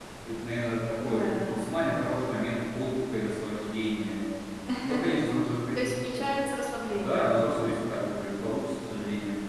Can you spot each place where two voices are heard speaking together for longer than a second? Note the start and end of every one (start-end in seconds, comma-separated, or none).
none